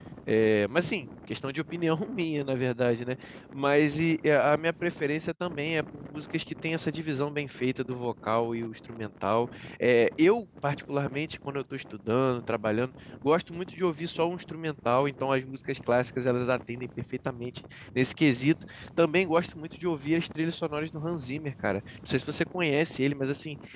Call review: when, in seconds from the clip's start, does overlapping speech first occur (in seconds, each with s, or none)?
none